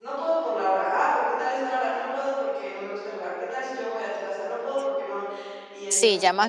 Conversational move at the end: taking over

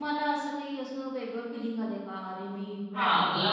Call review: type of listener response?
taking over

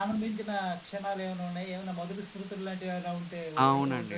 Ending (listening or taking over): taking over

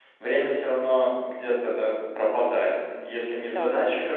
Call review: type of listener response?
listening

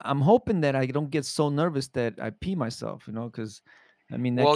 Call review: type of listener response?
taking over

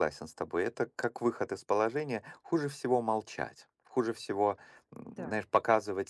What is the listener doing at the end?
listening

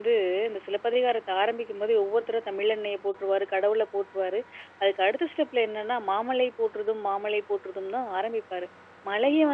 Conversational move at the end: listening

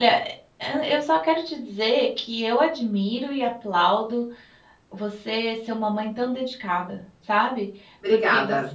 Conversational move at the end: listening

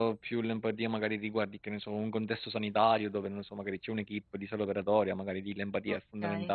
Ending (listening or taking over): taking over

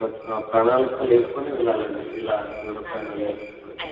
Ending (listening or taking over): taking over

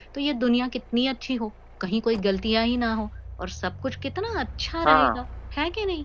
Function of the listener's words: listening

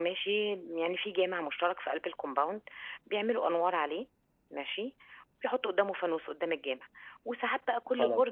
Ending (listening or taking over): listening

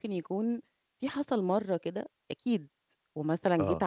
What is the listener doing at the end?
listening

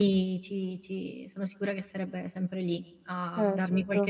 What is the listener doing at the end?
listening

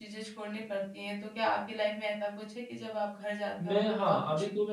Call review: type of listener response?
taking over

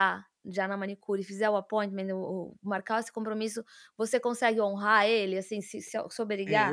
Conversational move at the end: taking over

